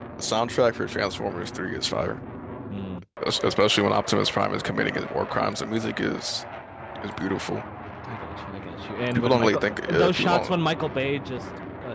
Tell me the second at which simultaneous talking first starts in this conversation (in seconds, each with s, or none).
9.1 s